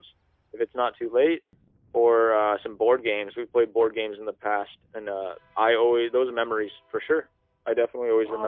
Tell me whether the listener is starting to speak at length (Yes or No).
Yes